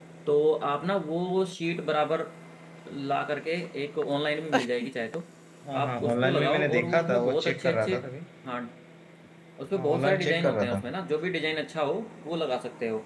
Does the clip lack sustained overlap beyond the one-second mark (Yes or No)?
No